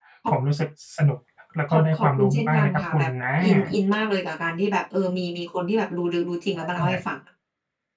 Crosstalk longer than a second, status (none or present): present